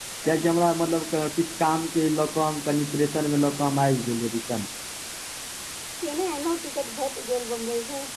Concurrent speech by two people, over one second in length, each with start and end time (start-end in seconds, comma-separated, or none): none